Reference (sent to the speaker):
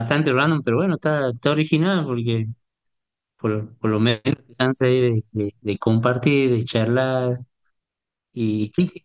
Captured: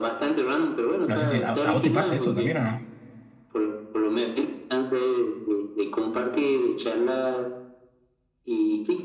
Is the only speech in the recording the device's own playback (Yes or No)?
No